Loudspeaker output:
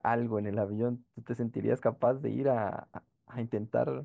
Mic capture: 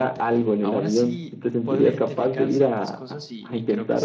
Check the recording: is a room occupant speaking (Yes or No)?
Yes